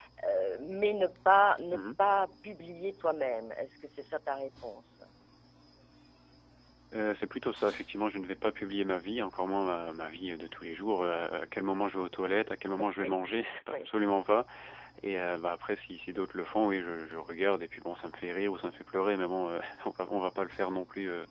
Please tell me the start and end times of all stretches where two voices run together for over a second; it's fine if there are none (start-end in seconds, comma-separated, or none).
none